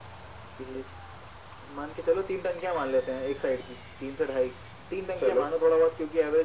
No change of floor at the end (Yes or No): Yes